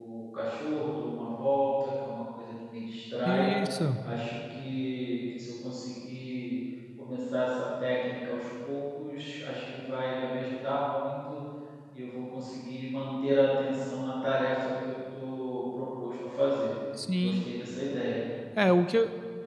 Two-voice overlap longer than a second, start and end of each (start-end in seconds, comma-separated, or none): none